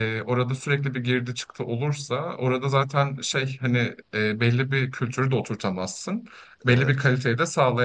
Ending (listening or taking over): listening